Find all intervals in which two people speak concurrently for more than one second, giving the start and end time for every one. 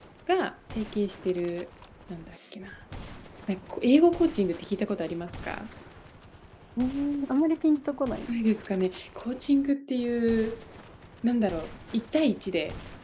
none

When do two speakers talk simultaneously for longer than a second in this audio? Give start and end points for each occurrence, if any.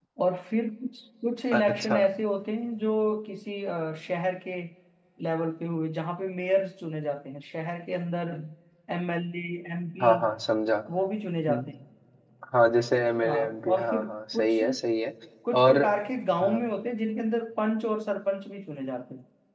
13.2-14.6

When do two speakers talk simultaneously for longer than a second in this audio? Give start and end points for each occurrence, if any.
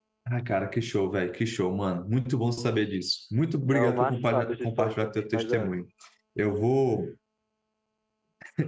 3.6-5.7

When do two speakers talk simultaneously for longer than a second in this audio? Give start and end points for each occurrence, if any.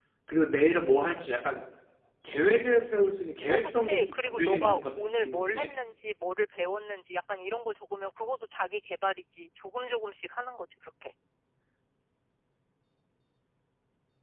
3.5-5.7

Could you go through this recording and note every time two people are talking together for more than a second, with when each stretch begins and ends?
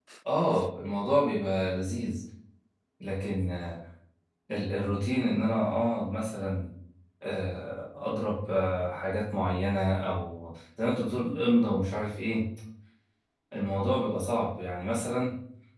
none

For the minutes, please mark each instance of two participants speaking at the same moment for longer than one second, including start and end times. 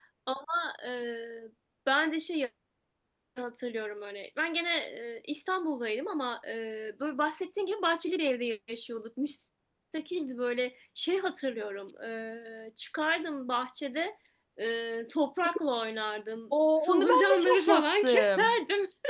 16.8-18.6

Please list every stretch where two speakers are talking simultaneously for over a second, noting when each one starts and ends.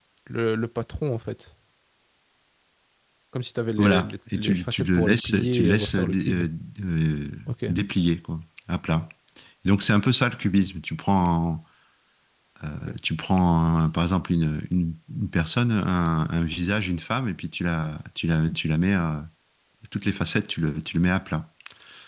3.8-6.4

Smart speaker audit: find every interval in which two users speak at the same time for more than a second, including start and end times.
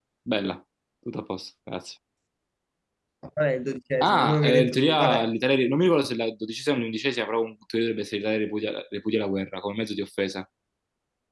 4.0-5.3

